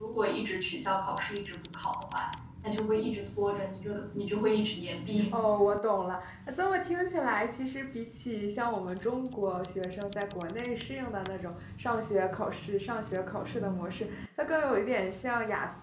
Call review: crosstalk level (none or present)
none